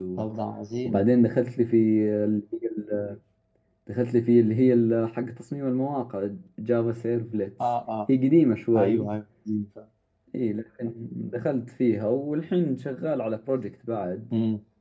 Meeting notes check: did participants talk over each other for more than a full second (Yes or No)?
No